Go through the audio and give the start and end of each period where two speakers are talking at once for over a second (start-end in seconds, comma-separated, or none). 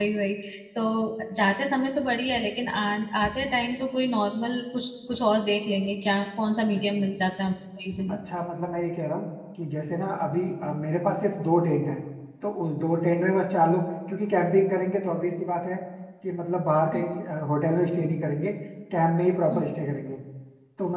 none